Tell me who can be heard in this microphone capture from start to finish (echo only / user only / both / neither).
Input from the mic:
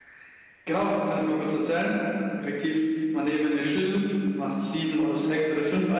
user only